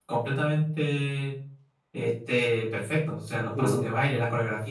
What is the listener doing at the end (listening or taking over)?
listening